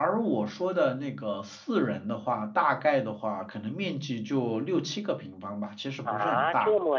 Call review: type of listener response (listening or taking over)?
taking over